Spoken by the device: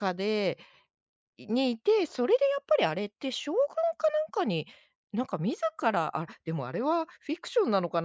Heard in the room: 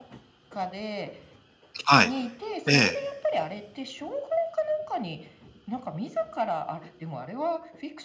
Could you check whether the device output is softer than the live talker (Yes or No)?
Yes